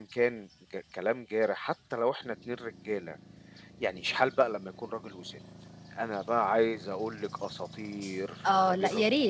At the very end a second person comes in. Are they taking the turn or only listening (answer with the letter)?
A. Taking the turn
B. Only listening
A